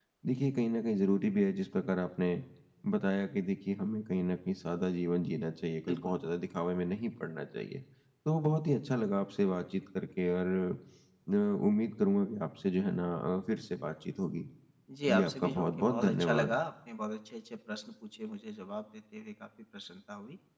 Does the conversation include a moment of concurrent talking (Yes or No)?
Yes